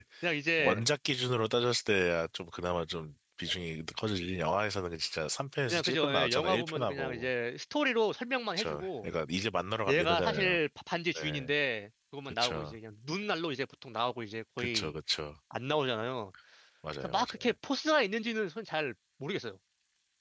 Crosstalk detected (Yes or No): Yes